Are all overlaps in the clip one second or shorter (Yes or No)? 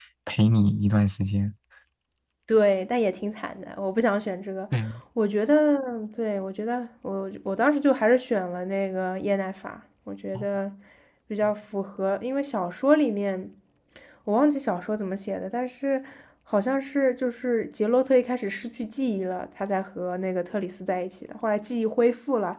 Yes